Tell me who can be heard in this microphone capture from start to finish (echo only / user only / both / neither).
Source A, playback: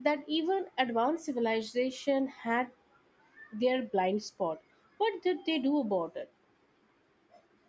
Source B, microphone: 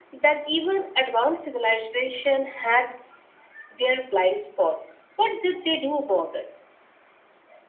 echo only